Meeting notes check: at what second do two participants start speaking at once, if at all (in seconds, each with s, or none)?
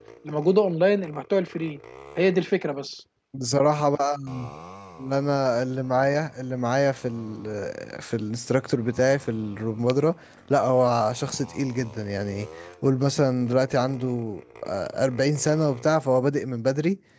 none